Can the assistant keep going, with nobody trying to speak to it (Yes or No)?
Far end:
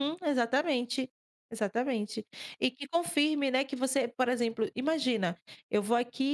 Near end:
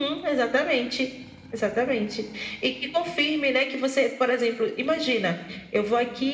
Yes